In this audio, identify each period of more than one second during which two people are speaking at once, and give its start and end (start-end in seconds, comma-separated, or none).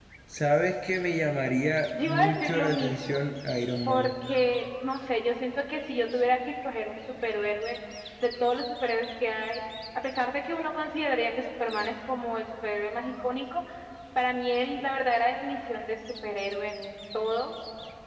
1.9-3.2